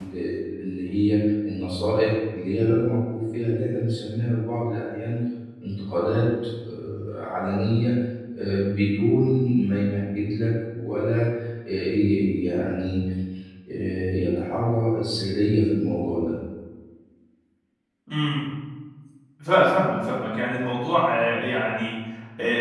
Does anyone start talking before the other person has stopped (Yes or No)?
No